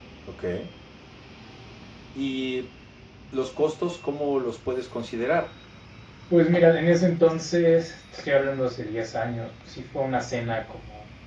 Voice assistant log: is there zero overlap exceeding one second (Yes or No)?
Yes